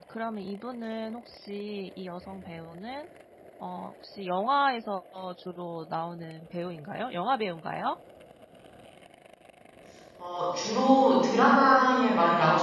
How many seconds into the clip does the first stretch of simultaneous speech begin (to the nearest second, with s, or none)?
none